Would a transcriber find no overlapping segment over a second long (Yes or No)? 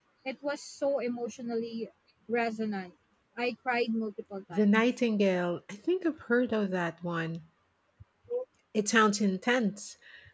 Yes